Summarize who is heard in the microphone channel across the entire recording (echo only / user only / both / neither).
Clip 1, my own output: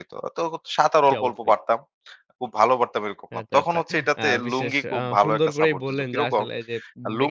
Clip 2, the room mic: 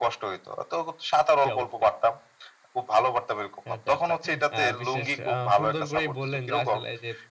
echo only